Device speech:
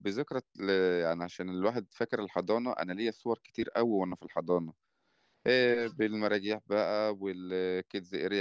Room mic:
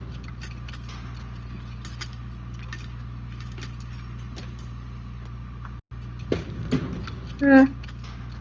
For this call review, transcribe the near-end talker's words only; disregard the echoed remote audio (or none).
امم